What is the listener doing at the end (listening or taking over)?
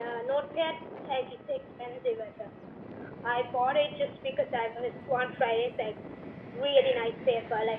listening